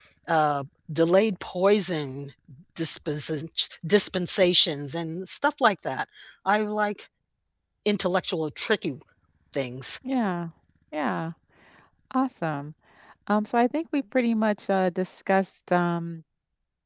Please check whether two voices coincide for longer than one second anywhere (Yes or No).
No